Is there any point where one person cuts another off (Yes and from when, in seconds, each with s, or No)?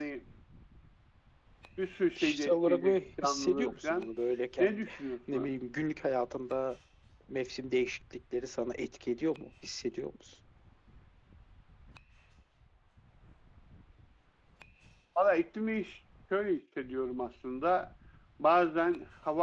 Yes, from 2.2 s